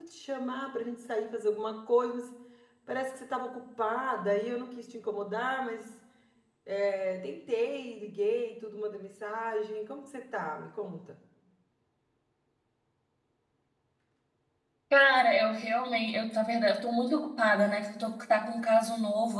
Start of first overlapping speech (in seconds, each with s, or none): none